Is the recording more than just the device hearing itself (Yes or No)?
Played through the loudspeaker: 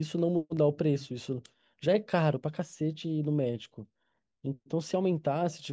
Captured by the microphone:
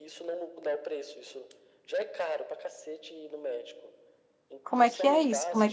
Yes